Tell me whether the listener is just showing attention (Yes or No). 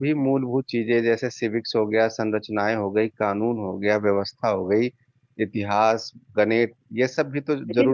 No